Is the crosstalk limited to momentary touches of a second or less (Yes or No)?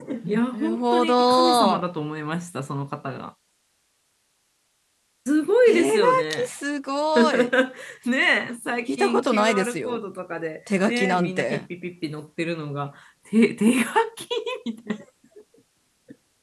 No